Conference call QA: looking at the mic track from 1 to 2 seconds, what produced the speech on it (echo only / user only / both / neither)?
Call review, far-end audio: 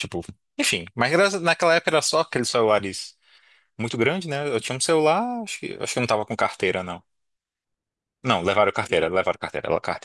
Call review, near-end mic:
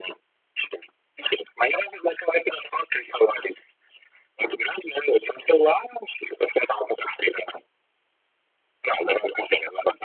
echo only